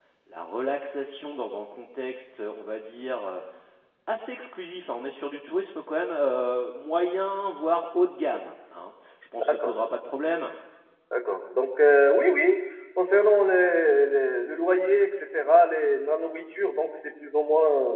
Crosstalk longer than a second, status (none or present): none